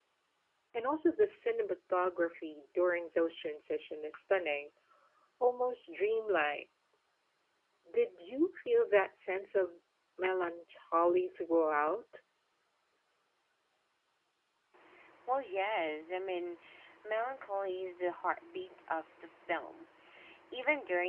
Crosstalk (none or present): none